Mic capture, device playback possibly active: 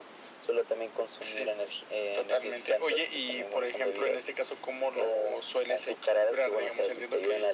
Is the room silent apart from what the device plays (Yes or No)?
Yes